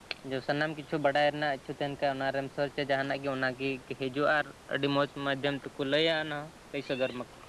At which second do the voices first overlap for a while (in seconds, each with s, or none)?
none